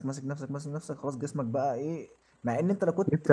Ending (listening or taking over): listening